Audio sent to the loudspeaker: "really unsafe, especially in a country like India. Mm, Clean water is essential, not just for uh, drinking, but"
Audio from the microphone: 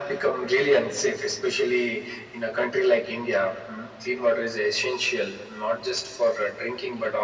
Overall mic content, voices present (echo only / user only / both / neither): echo only